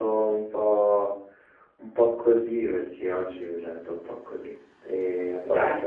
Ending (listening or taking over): listening